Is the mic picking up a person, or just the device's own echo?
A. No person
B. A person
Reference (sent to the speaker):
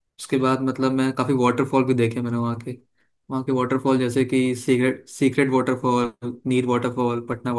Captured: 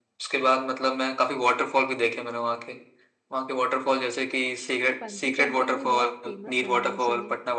B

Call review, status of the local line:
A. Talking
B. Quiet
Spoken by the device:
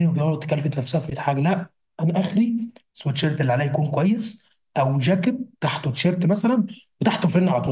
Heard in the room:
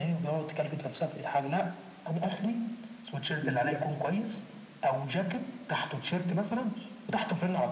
A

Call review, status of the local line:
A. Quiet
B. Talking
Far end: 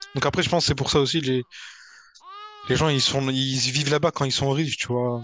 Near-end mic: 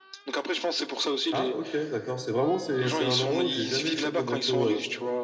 B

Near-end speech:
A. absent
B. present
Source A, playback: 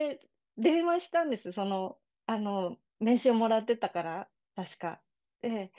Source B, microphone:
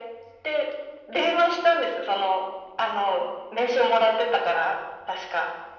A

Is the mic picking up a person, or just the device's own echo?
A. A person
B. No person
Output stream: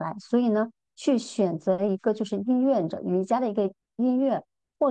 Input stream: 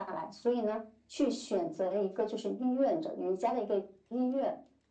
B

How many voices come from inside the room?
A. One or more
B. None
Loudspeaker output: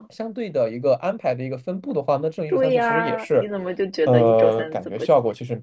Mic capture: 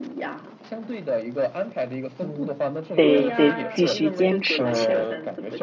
A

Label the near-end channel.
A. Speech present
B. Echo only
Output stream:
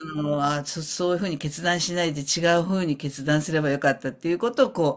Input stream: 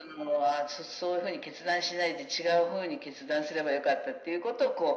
B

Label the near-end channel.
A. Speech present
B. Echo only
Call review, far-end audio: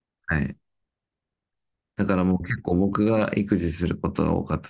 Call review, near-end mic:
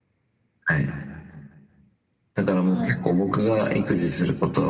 A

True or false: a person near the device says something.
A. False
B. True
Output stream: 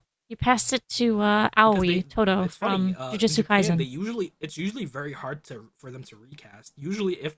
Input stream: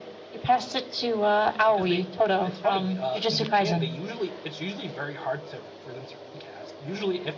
A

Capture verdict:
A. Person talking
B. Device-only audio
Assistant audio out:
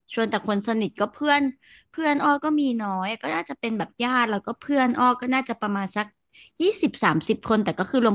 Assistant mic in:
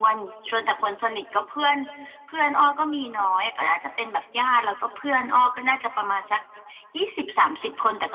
B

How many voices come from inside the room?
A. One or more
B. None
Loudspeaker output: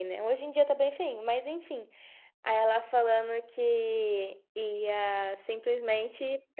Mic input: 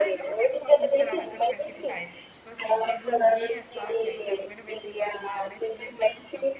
A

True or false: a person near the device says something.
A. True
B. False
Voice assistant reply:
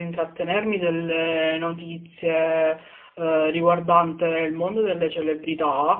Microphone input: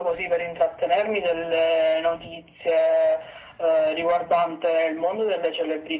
B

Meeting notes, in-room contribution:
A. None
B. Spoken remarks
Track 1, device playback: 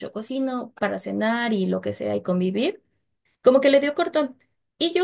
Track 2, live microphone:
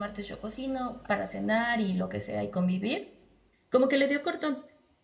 A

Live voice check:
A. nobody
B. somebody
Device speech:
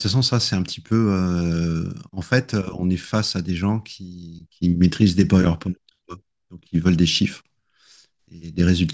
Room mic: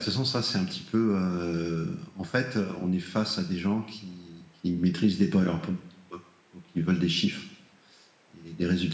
A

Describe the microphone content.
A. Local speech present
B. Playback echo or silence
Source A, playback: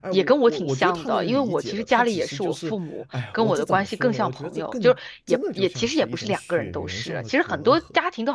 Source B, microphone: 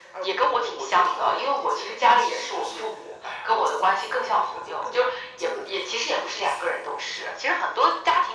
B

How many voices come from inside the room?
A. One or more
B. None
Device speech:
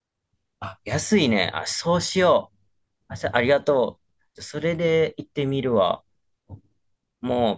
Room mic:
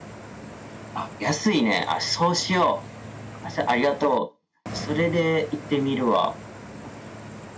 B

